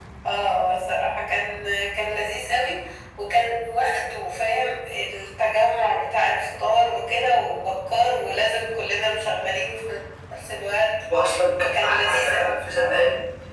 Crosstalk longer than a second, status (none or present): present